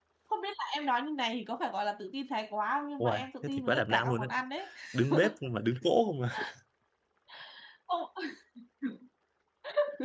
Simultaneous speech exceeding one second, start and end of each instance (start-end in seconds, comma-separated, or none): 3.0-4.3